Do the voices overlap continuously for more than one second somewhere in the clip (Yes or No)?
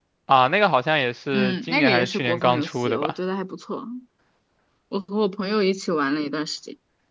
Yes